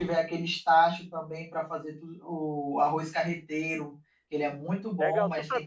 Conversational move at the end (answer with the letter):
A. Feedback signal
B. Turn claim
B